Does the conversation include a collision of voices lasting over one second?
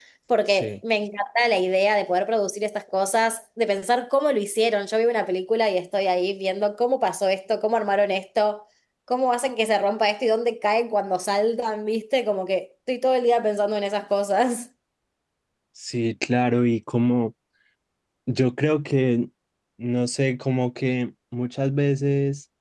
No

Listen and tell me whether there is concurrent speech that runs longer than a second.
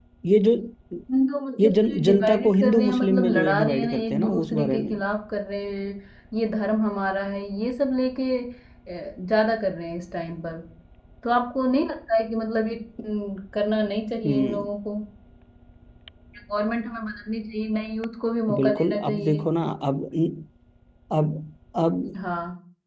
Yes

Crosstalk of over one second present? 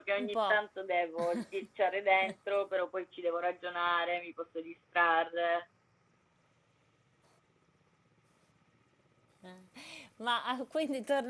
No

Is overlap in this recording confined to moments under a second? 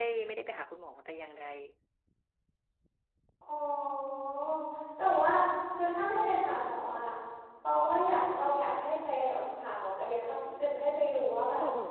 Yes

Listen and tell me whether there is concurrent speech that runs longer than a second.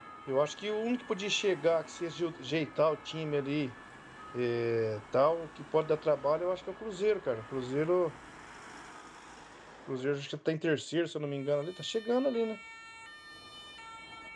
No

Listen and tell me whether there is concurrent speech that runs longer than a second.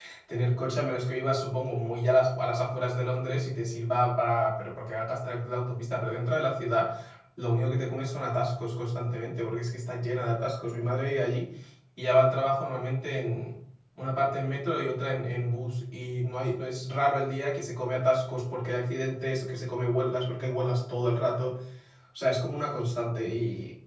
No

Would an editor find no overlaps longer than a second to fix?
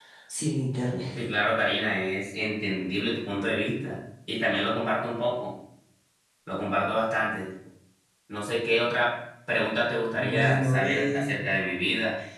No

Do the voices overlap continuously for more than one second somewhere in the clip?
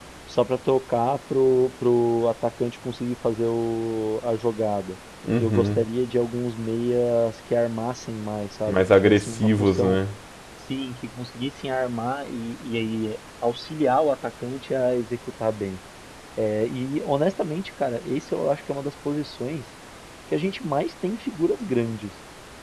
Yes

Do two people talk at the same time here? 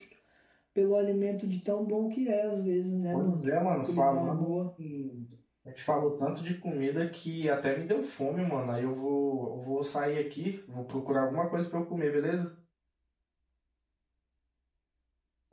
Yes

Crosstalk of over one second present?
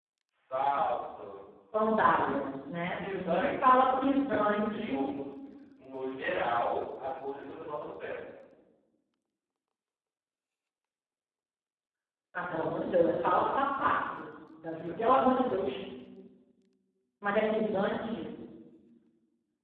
Yes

